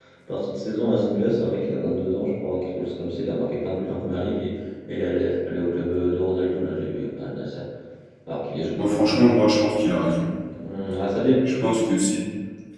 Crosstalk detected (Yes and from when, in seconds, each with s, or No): No